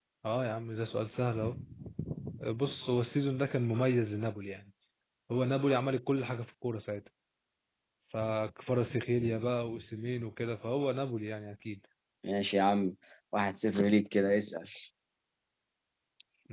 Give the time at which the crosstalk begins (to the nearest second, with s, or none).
none